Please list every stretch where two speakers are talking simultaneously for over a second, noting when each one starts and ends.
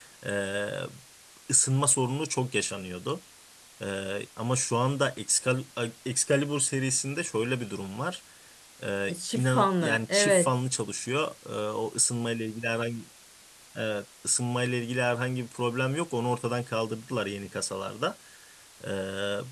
9.1-10.5

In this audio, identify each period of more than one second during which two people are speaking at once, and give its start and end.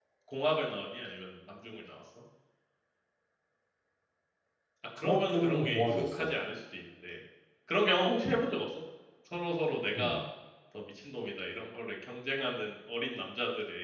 5.0-6.3

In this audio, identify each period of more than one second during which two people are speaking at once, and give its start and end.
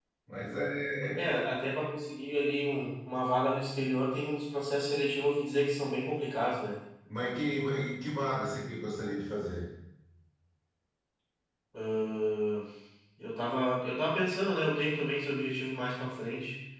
none

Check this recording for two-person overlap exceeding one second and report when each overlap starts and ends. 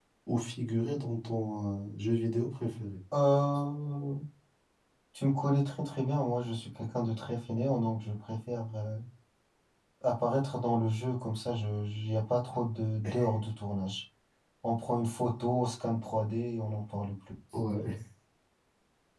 none

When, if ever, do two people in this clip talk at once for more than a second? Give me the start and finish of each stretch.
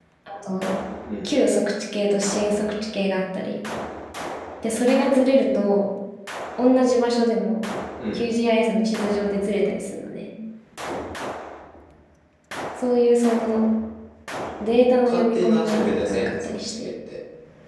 15.0-16.7

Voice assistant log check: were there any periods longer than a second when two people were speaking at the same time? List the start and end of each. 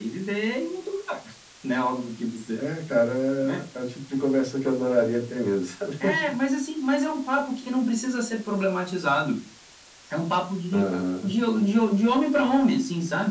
none

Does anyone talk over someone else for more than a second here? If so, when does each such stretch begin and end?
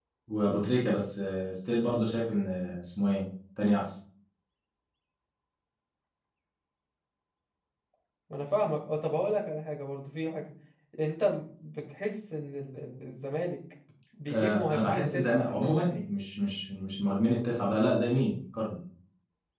14.3-16.0

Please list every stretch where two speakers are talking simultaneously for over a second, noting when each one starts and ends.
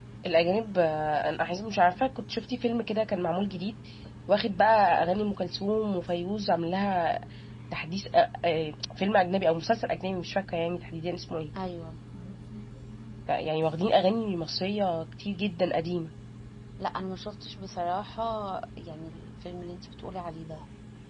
none

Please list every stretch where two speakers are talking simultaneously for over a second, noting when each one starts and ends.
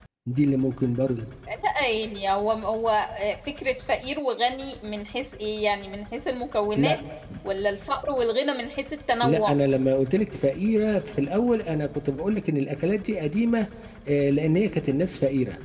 none

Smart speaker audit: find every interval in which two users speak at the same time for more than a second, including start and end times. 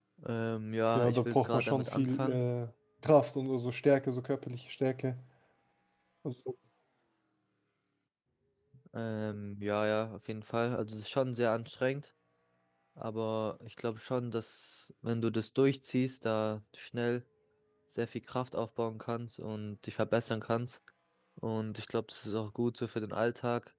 0.9-2.4

